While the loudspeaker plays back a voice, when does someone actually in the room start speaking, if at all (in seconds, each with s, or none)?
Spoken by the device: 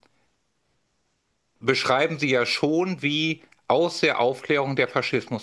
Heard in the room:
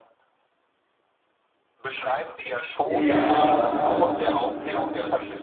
2.8 s